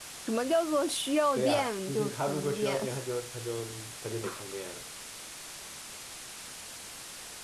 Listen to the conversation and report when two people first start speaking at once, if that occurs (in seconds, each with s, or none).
1.4 s